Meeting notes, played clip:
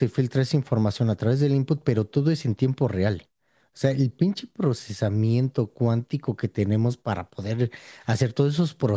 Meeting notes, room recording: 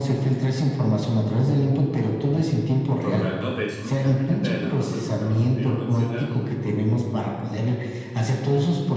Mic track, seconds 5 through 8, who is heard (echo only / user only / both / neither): both